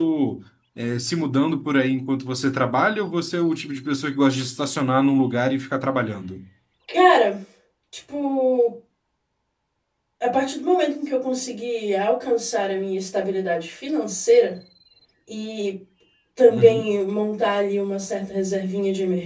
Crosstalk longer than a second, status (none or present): none